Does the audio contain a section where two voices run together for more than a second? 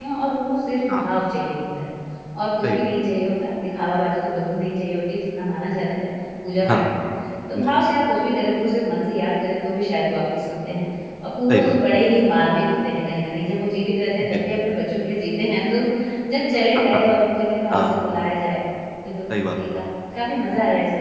No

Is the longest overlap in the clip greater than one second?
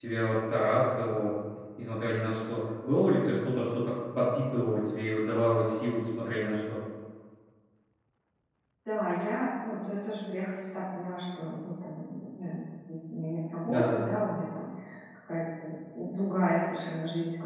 No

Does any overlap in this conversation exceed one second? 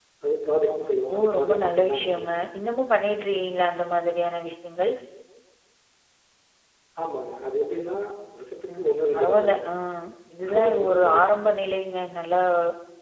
Yes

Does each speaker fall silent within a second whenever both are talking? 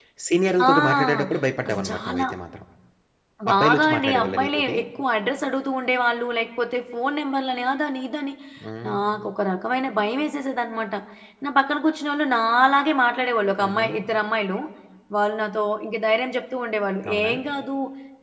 No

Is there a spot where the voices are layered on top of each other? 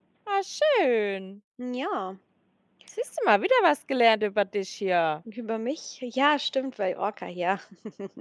No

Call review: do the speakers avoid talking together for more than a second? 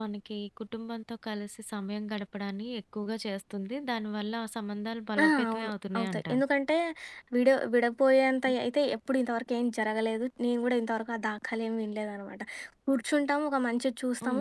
No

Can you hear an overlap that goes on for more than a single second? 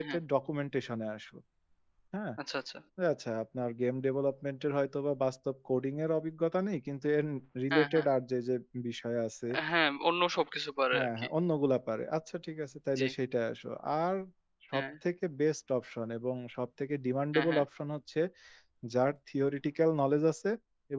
No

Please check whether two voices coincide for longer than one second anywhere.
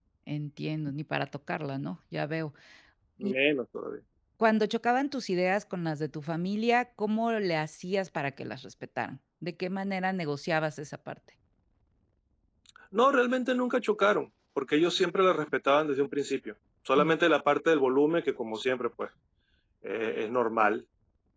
No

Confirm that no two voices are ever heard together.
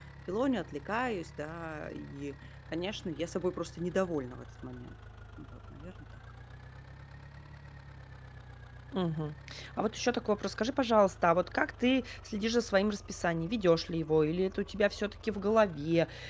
Yes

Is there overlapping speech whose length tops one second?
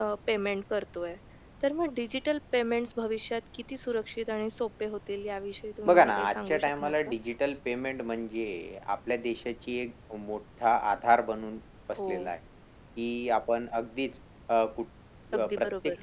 Yes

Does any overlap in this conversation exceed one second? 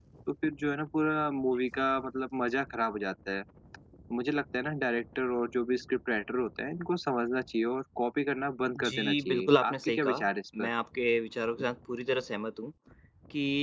Yes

